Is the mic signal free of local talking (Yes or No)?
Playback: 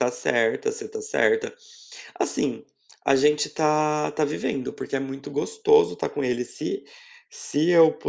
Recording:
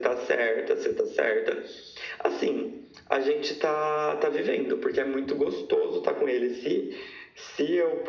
Yes